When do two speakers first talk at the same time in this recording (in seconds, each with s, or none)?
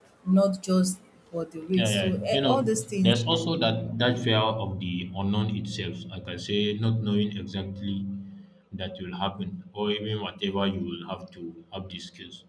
1.7 s